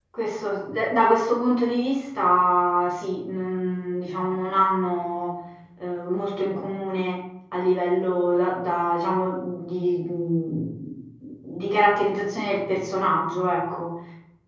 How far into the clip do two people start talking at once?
none

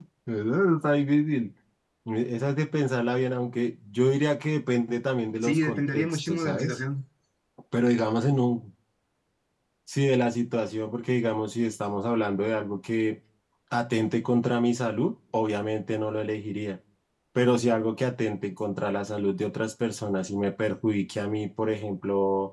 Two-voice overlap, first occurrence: 5 s

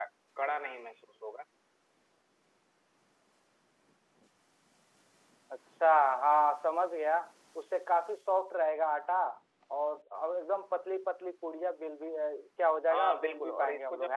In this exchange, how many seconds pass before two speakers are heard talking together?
13 s

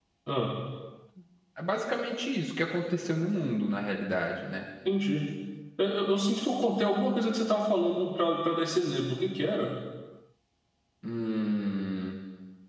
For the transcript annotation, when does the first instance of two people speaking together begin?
none

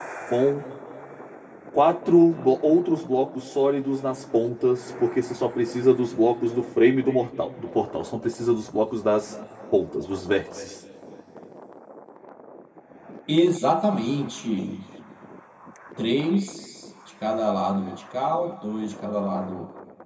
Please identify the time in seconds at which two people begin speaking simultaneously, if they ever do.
none

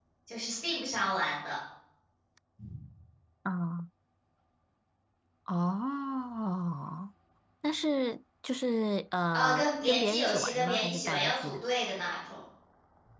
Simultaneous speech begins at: 9 s

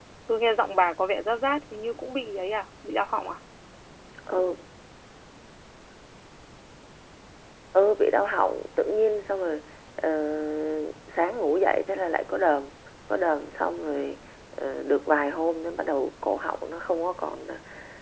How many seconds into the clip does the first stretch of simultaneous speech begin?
none

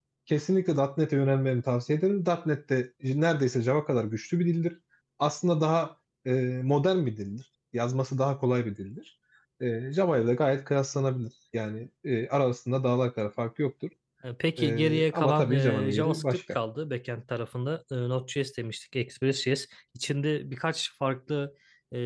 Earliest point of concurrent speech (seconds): 15 s

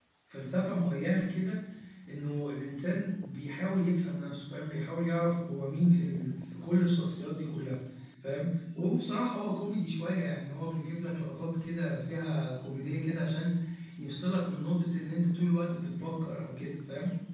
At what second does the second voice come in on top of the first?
none

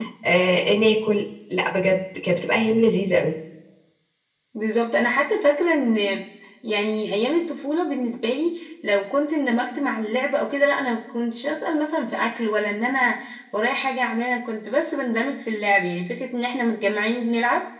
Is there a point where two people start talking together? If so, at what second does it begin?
none

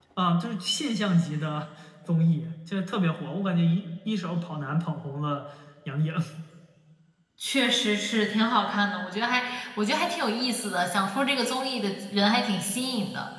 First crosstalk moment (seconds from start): none

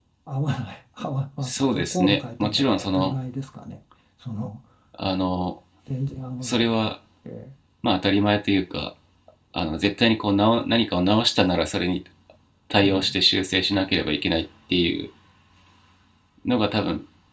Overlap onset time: 1 s

